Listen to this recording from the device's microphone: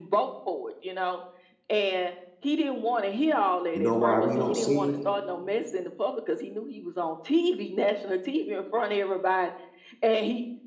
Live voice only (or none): you know why we don't see them?